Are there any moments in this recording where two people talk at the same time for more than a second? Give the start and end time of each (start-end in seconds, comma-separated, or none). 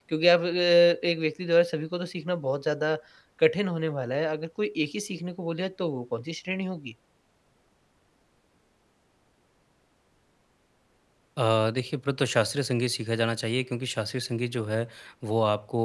none